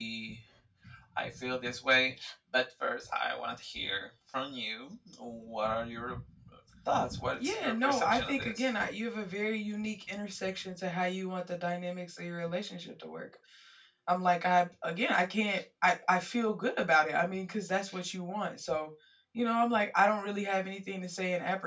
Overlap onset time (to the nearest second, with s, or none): 7 s